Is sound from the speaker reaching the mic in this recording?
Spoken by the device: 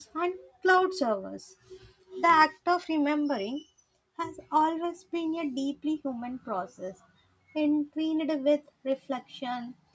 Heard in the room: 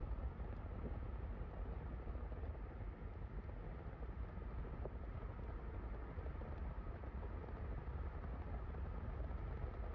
No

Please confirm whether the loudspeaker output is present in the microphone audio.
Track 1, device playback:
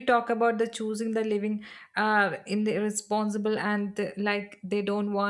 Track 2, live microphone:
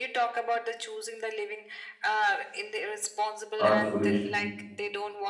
Yes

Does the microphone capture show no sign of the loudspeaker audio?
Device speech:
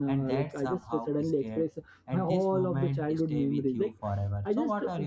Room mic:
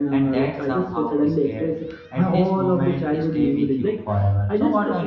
No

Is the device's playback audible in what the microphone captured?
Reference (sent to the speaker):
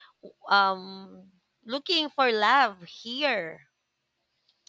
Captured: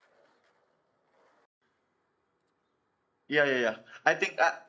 No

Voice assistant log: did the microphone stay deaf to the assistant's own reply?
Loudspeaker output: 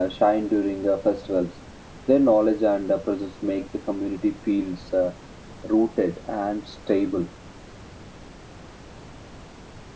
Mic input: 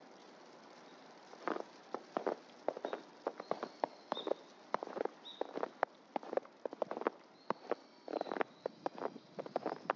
Yes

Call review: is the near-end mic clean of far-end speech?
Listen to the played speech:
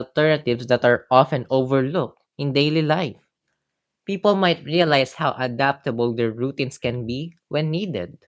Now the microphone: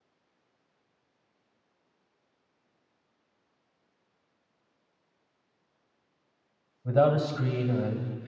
Yes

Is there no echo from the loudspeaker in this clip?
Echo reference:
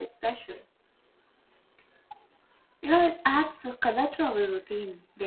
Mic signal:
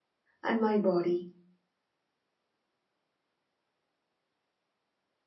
Yes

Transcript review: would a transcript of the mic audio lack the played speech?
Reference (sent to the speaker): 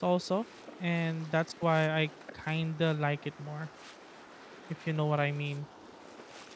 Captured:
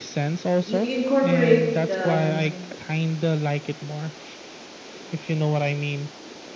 No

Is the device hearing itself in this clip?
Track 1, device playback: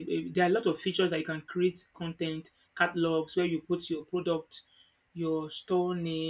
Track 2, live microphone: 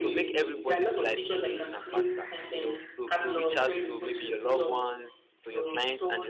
Yes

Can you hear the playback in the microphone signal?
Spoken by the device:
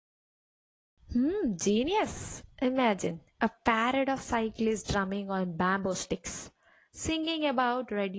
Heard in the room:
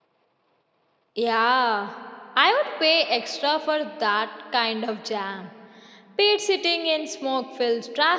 No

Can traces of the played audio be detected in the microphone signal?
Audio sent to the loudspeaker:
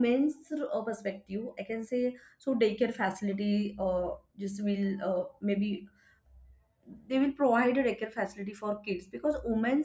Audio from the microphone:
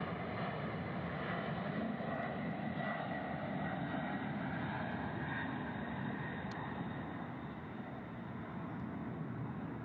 No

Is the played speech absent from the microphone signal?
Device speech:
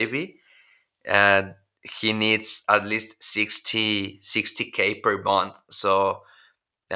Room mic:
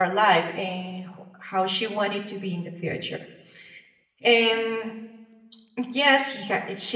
Yes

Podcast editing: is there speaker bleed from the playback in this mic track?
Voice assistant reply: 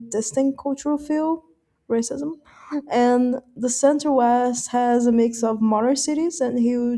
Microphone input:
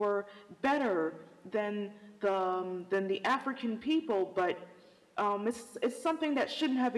No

